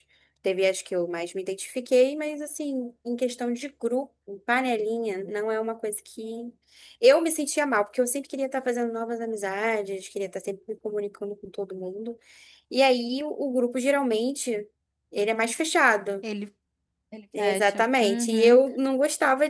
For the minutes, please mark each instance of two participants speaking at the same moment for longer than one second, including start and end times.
17.4-18.6

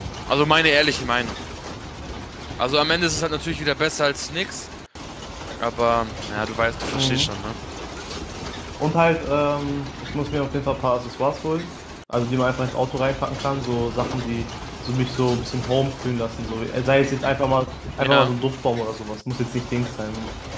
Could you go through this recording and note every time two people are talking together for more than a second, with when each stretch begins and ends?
none

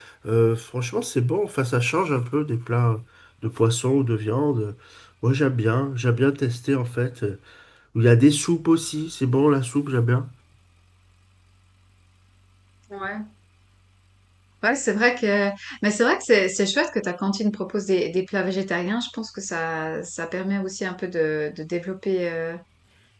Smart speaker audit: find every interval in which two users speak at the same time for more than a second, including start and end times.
none

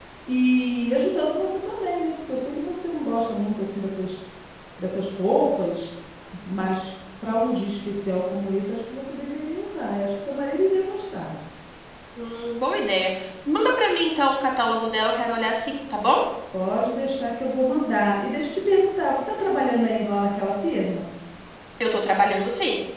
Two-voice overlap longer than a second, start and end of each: none

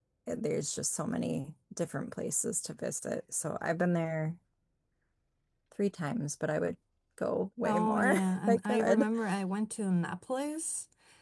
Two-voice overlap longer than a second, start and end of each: 7.6-9.1

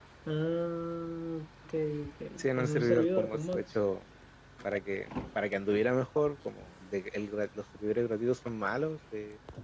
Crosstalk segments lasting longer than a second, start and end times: 2.6-3.8

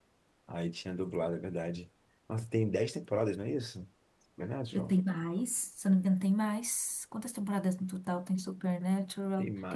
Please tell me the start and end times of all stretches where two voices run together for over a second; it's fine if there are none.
none

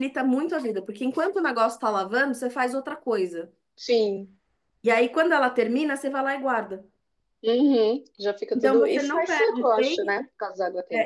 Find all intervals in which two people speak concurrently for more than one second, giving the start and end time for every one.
8.6-10.1

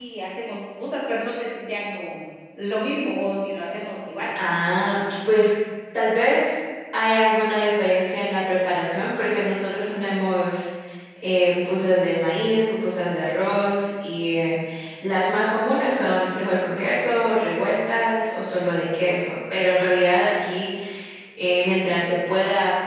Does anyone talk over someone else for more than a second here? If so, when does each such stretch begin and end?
none

